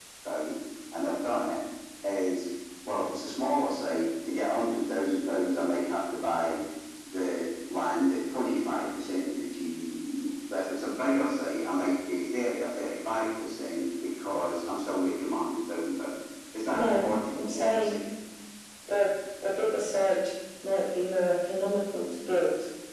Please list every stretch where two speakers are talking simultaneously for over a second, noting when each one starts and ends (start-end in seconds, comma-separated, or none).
16.7-18.0